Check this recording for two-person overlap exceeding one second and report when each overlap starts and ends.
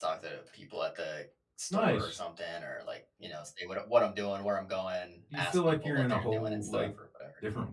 5.3-6.9

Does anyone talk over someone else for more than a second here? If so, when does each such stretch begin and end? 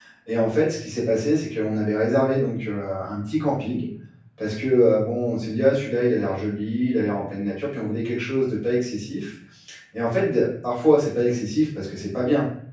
none

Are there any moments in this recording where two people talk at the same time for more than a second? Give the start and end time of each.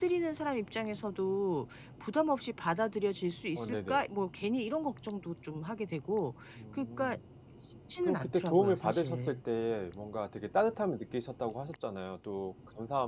8.0-9.4

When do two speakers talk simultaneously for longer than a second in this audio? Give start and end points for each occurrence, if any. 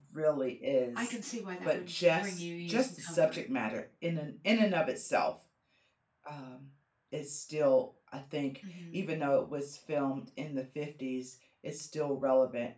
1.6-3.4

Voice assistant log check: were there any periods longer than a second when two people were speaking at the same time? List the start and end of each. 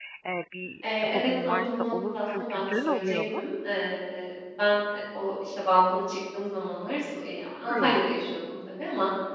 1.0-3.4

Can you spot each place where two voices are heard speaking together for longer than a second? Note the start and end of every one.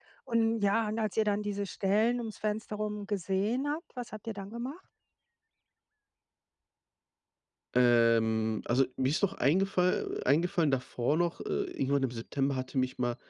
none

